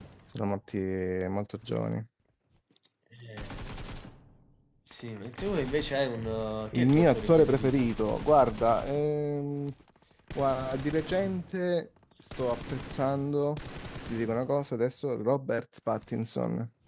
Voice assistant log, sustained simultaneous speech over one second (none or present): present